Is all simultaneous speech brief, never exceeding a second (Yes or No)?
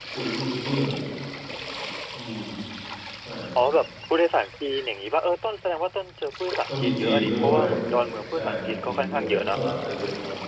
No